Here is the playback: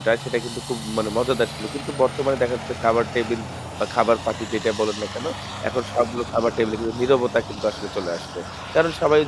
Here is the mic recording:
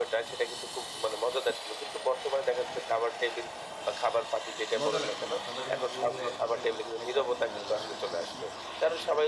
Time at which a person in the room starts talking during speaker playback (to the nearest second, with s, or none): 5 s